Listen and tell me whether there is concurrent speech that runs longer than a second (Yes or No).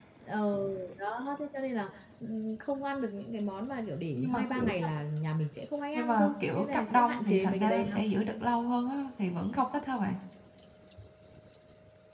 Yes